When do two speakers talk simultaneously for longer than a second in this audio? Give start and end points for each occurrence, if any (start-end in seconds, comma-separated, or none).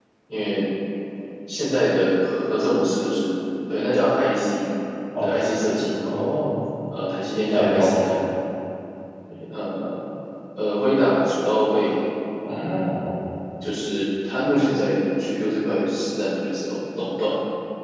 none